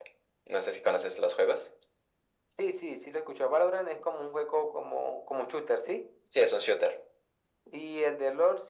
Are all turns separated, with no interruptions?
Yes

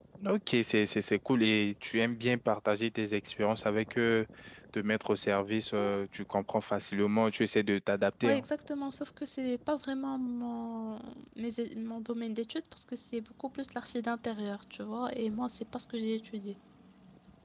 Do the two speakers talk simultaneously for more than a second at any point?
No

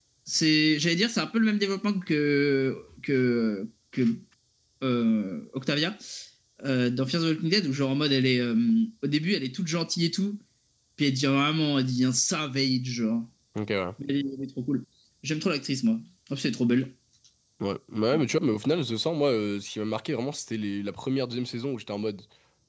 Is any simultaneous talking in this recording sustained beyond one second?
No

